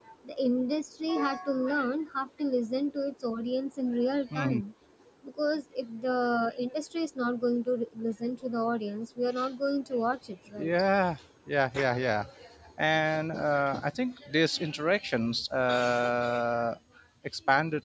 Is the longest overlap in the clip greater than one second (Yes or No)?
No